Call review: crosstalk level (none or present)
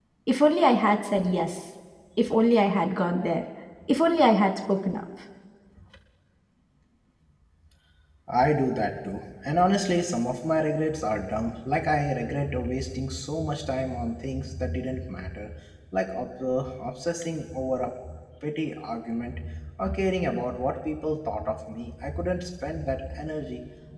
none